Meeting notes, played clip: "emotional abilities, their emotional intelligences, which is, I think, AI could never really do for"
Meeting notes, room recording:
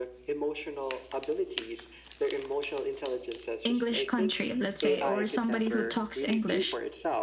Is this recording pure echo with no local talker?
No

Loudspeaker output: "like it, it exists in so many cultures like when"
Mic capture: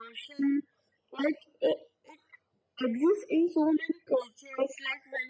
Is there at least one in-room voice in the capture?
No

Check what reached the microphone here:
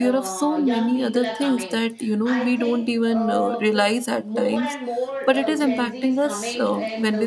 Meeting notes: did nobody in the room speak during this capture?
No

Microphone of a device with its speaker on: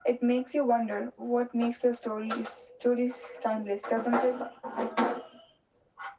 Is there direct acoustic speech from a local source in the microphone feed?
No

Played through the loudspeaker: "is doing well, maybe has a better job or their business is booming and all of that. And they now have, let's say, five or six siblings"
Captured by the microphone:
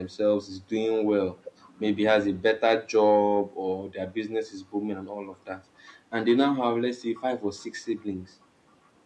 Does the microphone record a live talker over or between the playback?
No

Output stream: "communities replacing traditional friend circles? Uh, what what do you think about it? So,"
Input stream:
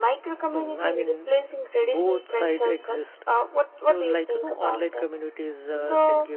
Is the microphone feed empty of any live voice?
No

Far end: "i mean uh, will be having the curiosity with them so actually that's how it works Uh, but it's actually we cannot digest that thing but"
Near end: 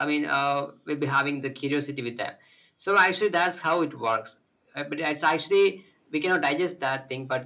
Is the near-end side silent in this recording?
Yes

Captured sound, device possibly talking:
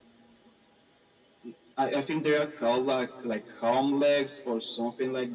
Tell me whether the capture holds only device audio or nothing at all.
Yes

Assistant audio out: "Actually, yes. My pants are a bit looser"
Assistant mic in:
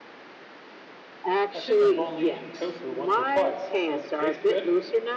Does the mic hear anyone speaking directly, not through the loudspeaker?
Yes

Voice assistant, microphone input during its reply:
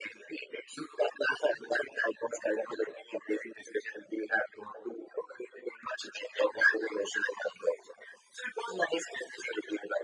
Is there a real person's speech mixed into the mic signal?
No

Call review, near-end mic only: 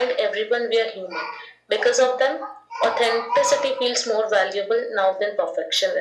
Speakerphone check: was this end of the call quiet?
Yes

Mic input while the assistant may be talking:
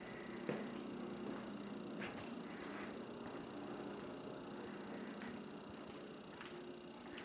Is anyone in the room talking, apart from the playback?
No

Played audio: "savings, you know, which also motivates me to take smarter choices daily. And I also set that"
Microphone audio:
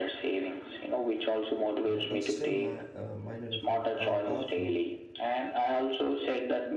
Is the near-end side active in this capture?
Yes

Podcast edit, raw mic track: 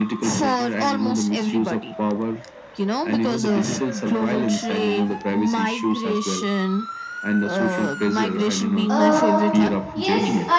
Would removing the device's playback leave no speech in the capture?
No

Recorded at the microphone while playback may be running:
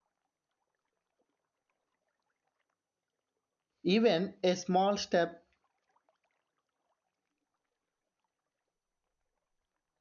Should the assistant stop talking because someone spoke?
Yes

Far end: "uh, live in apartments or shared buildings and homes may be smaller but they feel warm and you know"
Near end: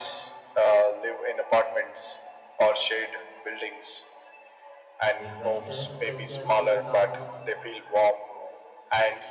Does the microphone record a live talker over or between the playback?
Yes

